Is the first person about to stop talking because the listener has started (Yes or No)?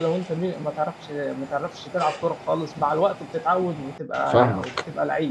Yes